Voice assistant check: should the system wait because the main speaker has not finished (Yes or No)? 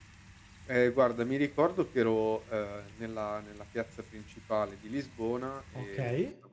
Yes